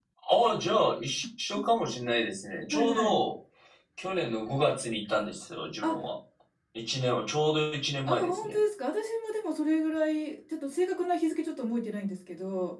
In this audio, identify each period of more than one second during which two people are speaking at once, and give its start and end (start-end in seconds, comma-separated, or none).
none